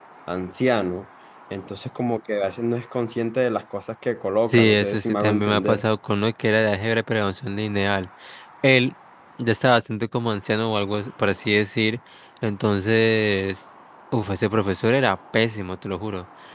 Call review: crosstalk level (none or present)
present